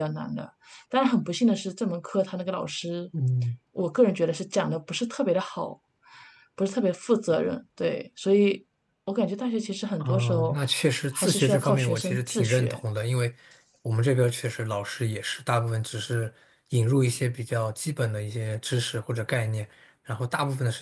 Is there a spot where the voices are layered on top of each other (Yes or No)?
Yes